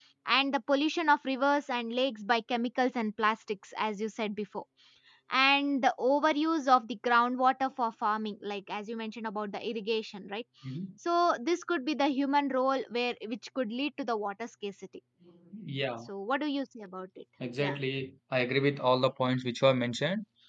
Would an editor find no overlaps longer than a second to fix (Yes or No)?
Yes